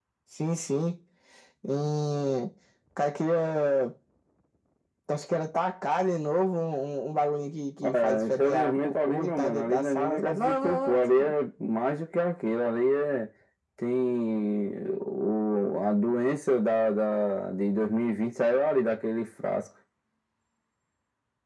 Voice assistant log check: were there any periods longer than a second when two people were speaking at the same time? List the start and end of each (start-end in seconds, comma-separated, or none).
7.9-11.3